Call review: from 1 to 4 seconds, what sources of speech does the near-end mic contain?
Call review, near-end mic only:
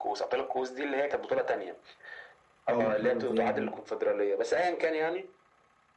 both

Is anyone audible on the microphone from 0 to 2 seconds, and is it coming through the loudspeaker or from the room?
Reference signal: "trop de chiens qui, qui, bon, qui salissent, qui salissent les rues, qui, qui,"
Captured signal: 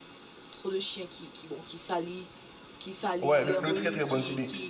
echo only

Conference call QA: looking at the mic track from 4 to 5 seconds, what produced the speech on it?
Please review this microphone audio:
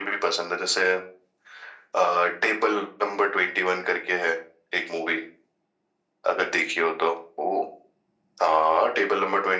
echo only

